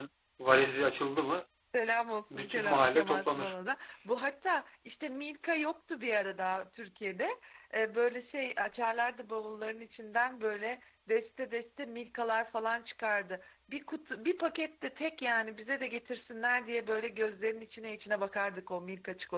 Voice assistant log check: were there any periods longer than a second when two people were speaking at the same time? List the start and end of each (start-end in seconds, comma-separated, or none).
2.3-3.5